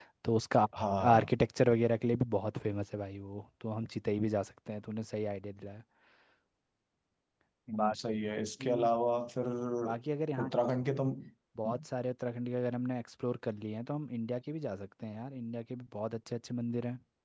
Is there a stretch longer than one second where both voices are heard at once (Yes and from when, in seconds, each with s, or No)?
No